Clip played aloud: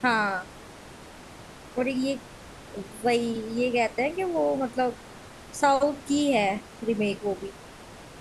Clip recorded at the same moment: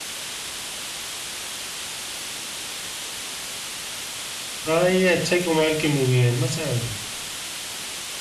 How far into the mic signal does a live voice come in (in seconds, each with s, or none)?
4.7 s